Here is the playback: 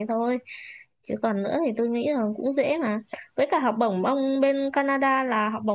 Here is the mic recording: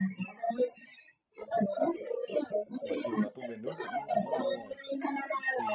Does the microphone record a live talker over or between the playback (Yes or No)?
Yes